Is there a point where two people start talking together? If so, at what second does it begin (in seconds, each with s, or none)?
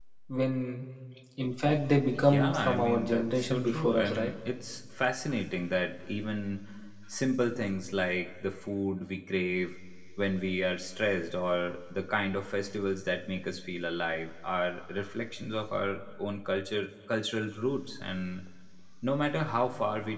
2.1 s